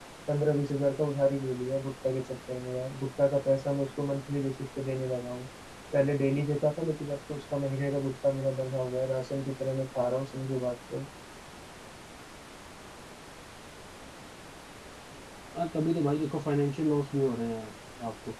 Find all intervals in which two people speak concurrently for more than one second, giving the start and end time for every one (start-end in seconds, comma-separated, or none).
none